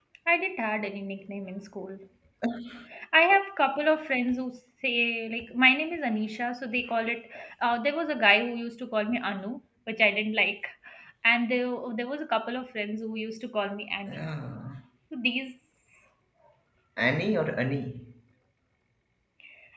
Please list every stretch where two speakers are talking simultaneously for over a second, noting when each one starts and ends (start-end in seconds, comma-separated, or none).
none